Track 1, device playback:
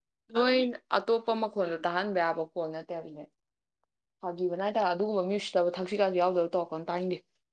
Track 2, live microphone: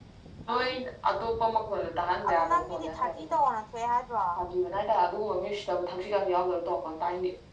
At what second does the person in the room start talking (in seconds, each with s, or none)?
2.3 s